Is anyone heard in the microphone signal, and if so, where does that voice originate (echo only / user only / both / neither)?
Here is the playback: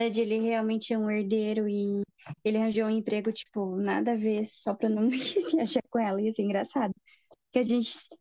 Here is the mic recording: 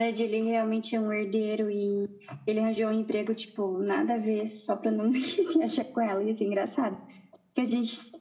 echo only